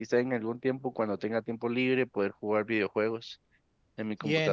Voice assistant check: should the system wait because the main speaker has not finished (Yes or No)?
No